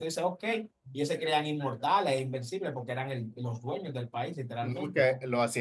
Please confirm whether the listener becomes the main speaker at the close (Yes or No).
Yes